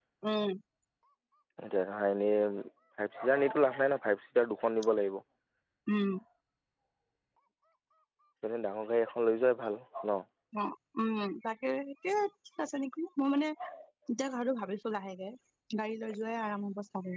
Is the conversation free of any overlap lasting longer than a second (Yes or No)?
Yes